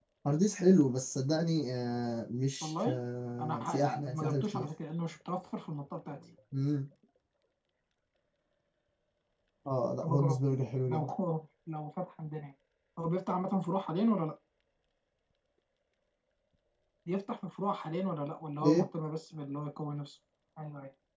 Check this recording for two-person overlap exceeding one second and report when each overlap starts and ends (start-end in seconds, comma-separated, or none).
3.4-4.7